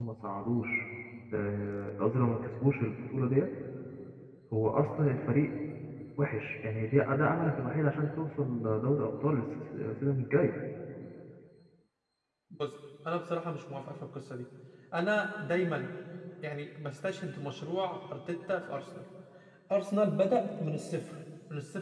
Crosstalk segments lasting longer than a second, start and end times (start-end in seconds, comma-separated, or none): none